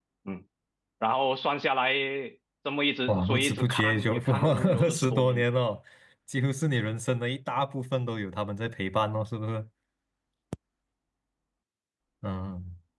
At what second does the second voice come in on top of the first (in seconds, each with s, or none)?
3.1 s